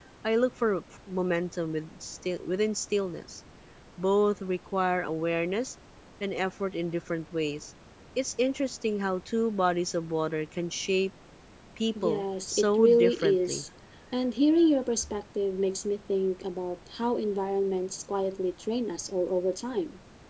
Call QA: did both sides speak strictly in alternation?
No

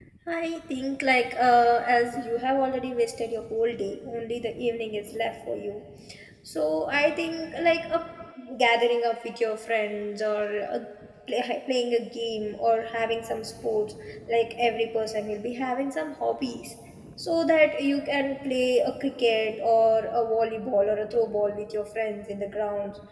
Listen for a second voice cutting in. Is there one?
No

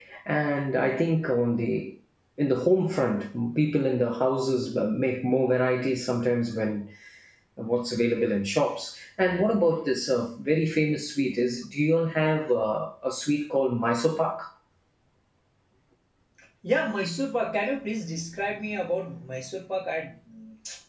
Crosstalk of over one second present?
No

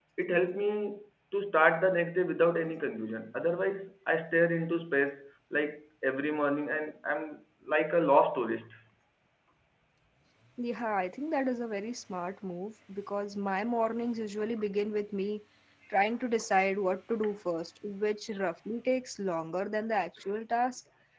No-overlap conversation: Yes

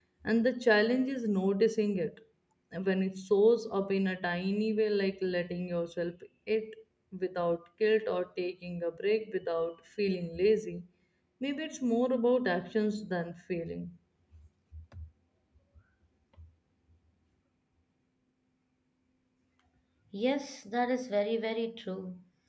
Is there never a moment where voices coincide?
Yes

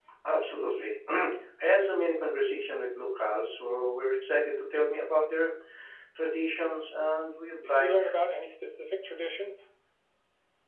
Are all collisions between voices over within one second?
Yes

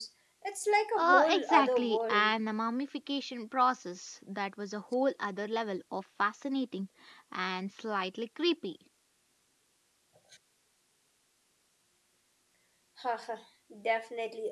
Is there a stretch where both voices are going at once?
Yes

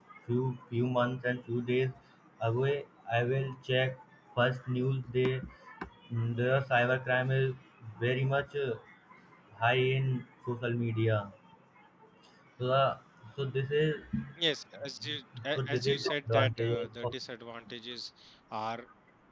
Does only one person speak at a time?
No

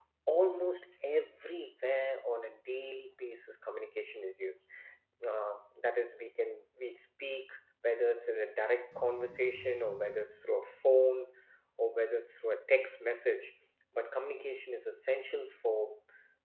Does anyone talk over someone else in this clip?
No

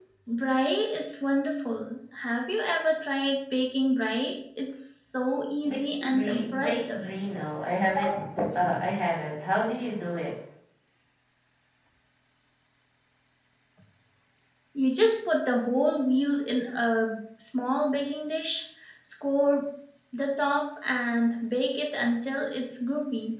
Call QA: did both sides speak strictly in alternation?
No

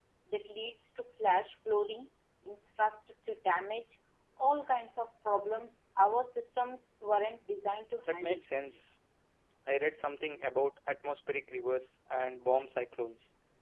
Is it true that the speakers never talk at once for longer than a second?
Yes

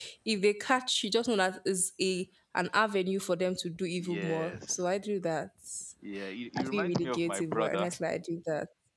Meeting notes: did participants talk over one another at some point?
Yes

